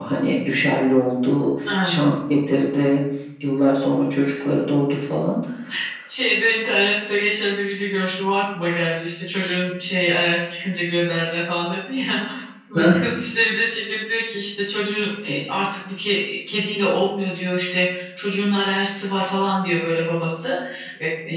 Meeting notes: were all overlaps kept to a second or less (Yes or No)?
Yes